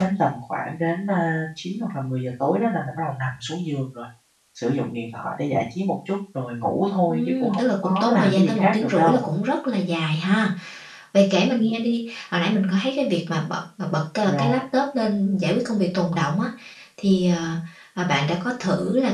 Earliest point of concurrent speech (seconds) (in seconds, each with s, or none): 7.1 s